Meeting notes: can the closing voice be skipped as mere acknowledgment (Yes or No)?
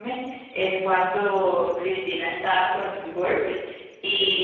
Yes